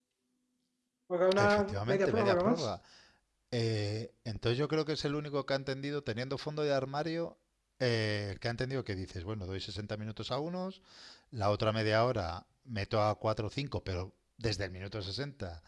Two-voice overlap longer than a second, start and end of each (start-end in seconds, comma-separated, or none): 1.4-2.7